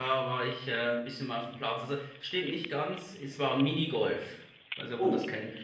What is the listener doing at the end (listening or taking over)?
taking over